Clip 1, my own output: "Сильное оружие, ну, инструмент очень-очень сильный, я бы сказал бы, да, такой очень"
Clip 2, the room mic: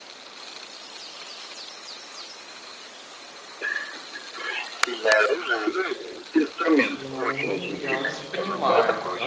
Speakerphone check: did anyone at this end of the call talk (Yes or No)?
Yes